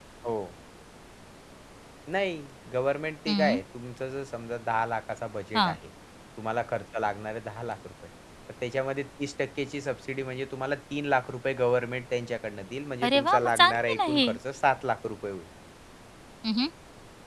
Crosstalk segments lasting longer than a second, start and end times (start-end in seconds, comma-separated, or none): 13.0-14.3